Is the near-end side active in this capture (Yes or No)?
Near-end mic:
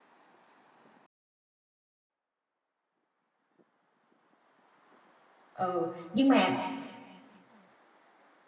Yes